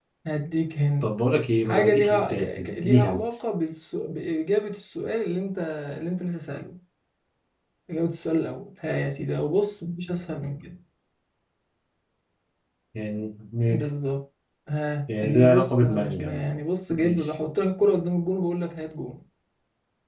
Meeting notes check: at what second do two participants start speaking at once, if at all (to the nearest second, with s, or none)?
2 s